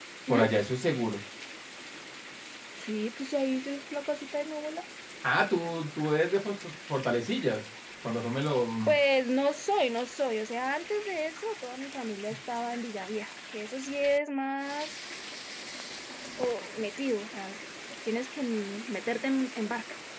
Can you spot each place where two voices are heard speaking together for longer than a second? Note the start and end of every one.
none

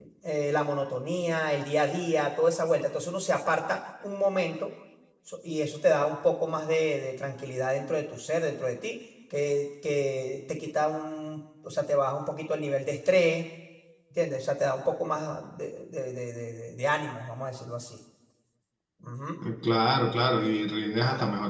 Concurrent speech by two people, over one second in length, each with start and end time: none

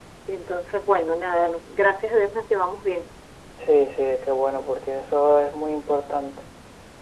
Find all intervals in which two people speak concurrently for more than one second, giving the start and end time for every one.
none

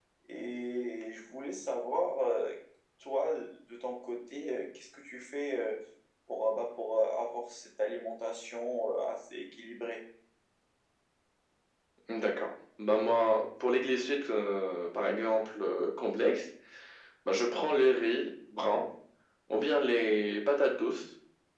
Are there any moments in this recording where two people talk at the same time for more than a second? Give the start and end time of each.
none

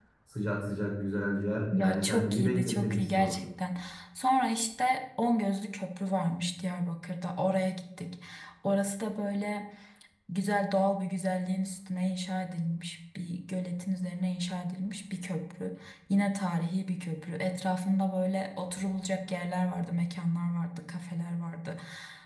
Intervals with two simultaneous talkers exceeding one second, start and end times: 1.7-3.4

